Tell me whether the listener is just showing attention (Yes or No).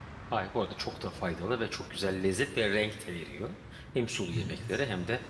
Yes